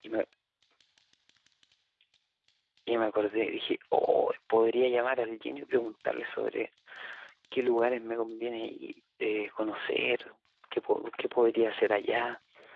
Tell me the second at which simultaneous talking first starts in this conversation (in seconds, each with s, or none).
none